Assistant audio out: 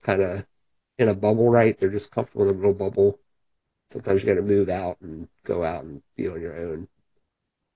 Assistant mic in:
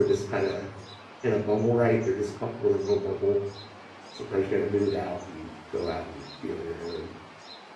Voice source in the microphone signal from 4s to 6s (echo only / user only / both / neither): echo only